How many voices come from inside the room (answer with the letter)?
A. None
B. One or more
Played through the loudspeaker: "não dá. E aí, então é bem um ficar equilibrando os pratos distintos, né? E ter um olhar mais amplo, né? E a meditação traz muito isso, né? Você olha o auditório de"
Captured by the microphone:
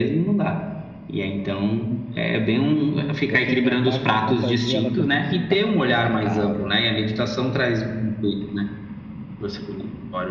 B